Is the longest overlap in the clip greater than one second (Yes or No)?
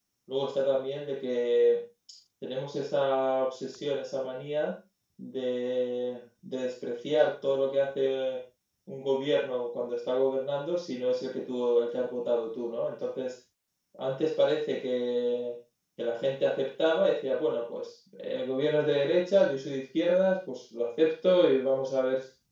No